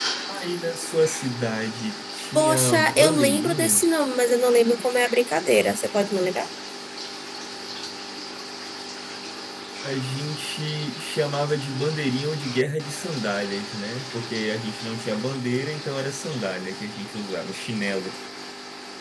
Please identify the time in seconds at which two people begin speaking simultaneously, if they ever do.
2.4 s

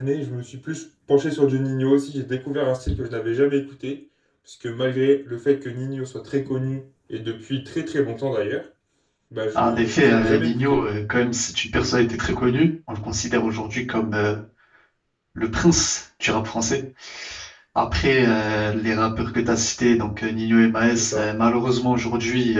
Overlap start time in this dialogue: 9.5 s

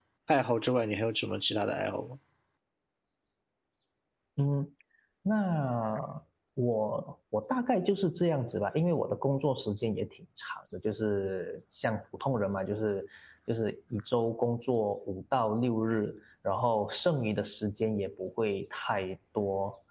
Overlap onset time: none

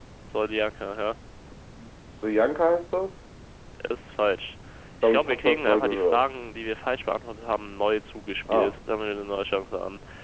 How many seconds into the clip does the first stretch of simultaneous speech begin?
5.0 s

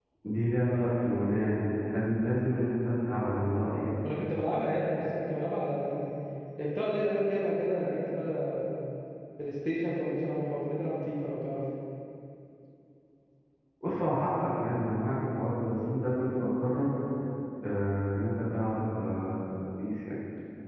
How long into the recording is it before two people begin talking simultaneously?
none

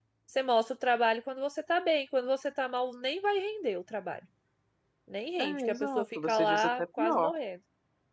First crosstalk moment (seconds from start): 5.4 s

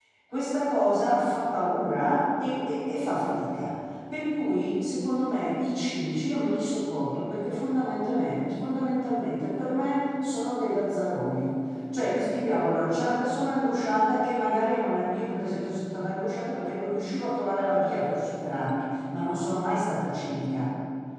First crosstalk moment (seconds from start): none

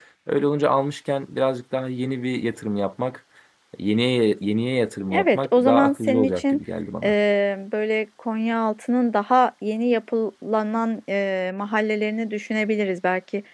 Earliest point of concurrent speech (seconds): 5.0 s

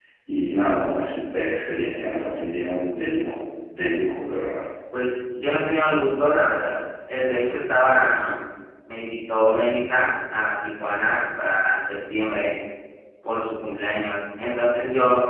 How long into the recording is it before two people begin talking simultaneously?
none

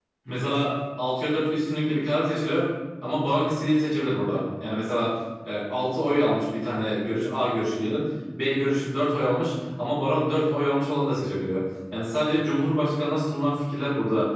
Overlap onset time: none

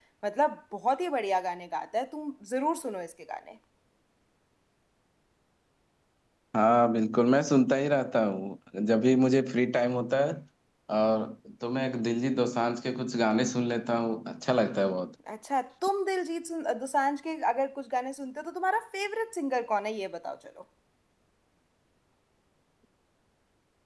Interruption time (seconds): none

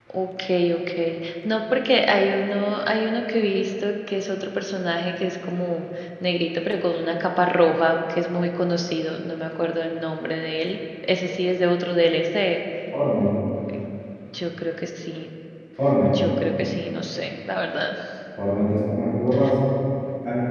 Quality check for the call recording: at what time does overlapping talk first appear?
none

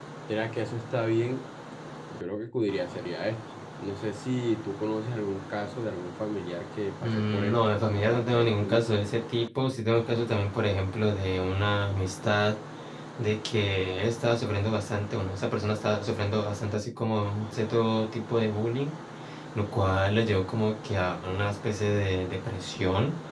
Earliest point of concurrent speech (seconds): 7.0 s

